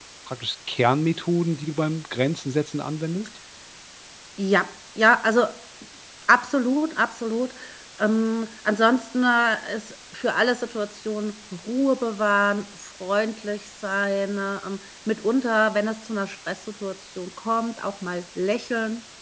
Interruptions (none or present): none